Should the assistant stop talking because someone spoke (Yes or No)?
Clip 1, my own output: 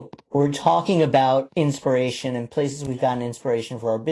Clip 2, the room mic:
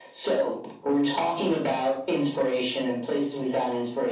No